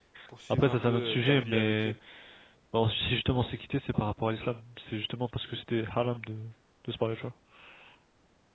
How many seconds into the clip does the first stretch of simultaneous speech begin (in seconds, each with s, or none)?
0.5 s